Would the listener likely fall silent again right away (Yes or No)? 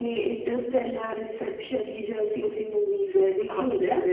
No